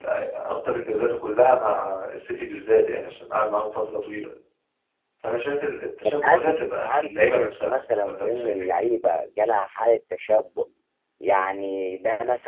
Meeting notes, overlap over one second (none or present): present